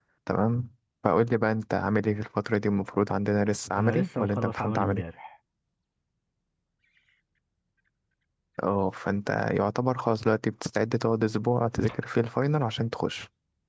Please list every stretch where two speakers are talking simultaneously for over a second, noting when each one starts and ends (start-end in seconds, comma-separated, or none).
3.8-5.0